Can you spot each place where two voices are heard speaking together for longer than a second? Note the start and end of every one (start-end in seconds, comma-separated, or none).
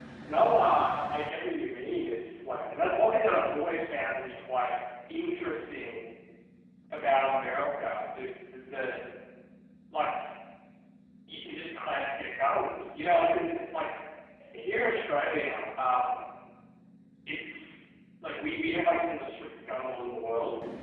none